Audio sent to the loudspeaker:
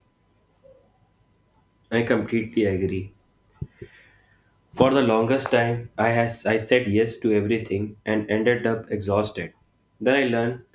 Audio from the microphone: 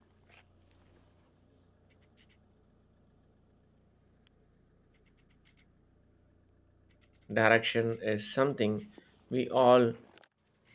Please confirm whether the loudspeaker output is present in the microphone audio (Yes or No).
No